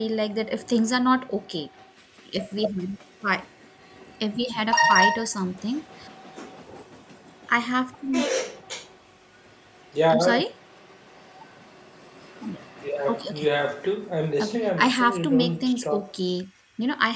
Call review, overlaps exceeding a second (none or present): present